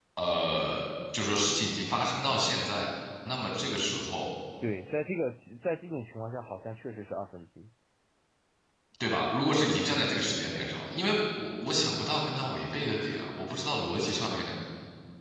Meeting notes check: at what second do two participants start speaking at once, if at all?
none

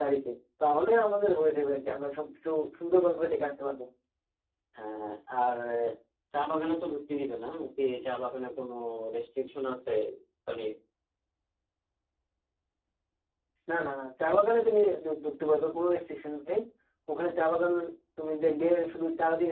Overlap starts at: none

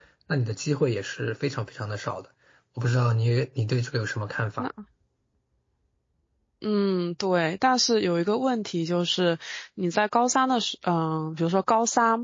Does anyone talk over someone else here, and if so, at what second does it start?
none

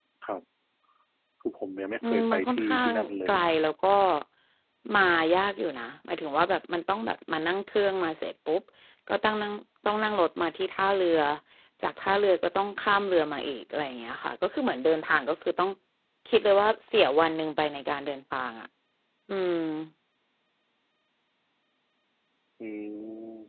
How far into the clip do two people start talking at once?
2.0 s

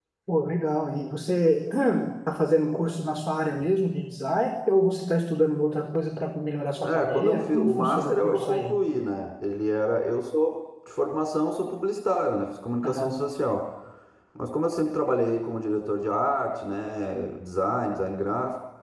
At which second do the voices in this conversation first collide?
6.8 s

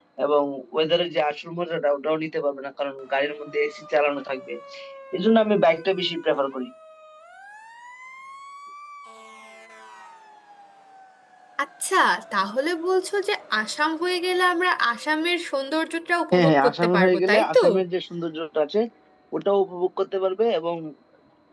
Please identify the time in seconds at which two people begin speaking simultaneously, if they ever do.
16.3 s

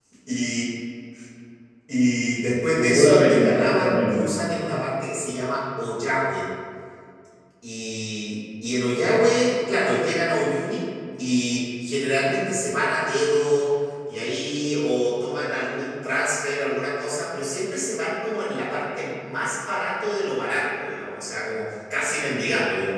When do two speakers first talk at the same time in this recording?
2.8 s

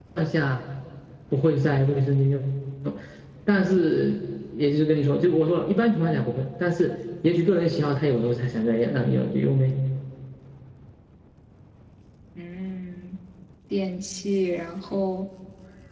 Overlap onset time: none

